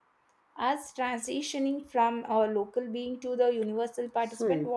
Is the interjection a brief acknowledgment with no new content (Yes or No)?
No